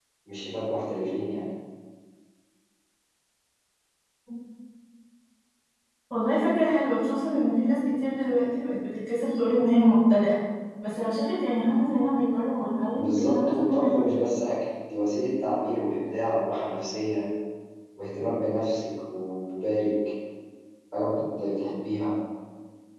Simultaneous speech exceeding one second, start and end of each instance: 13.0-14.2

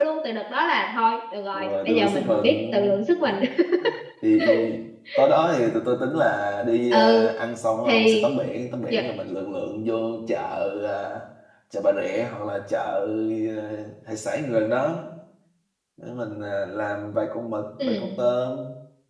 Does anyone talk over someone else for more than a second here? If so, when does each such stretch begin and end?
1.5-2.8

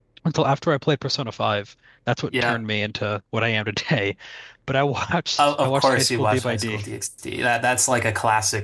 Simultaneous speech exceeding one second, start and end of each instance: 5.4-6.8

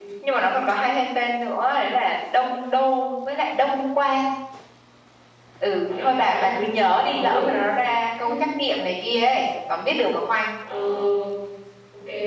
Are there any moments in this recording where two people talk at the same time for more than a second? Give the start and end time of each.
5.8-7.6

